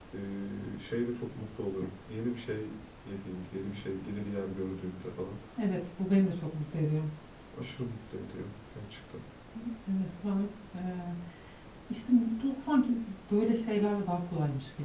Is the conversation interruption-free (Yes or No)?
Yes